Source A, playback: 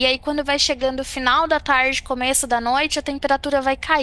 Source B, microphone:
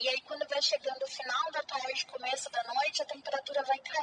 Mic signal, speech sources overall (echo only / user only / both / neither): echo only